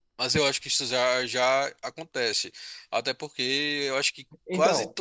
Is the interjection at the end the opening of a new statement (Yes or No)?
No